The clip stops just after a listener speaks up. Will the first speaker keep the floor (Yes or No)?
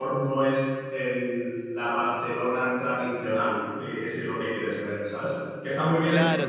No